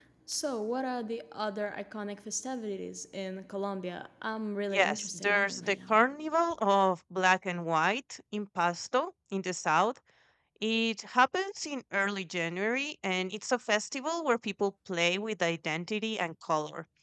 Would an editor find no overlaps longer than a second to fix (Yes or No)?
No